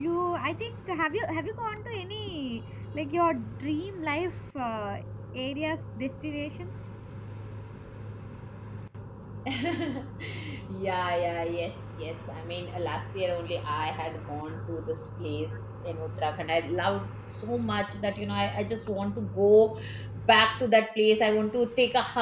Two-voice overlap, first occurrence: none

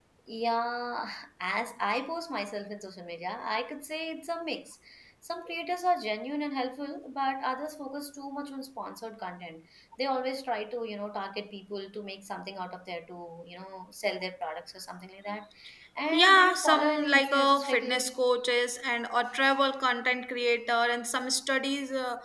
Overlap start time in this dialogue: 16 s

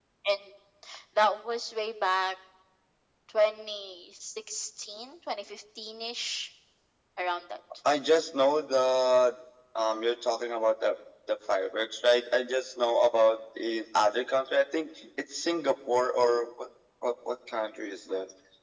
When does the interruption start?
none

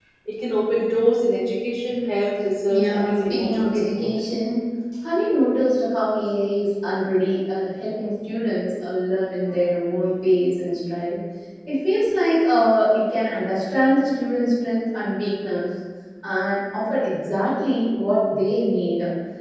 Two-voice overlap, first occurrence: 3 s

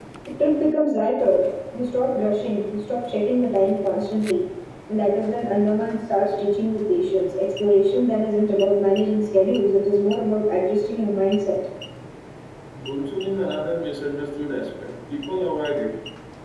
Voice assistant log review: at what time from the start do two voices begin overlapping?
none

